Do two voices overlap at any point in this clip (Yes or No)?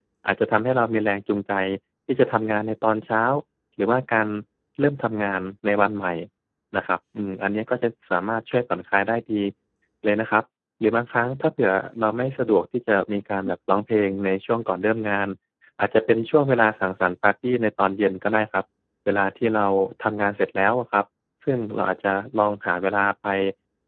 No